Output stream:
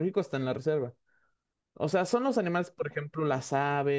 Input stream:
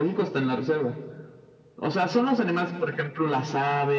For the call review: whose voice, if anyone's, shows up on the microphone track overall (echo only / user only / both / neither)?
echo only